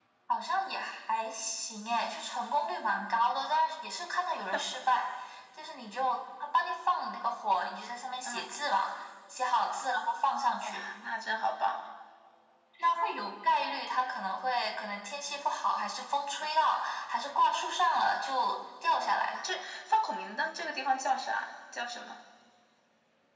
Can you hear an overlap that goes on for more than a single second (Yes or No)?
No